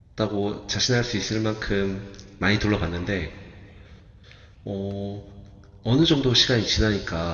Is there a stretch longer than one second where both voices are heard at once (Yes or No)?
No